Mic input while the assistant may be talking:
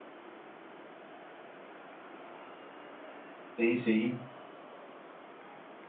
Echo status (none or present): none